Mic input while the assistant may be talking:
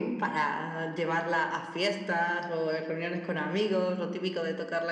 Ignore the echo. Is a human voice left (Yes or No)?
No